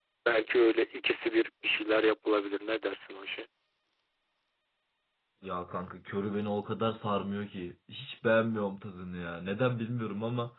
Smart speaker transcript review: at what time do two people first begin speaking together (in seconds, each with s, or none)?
none